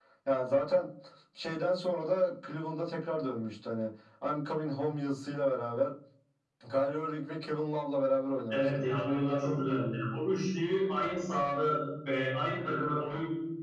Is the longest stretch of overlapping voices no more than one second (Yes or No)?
Yes